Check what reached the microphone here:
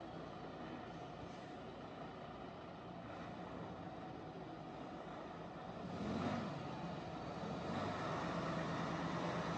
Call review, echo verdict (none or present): none